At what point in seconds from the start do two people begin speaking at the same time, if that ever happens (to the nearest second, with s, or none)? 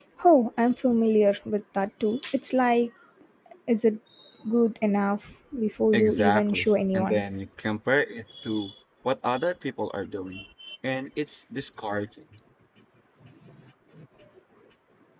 6 s